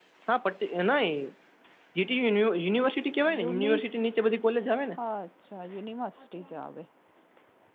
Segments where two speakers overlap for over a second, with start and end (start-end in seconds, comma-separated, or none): none